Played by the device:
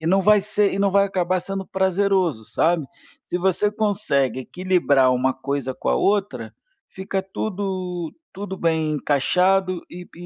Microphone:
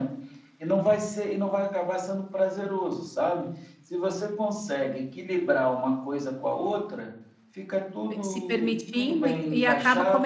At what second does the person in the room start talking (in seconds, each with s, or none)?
8.1 s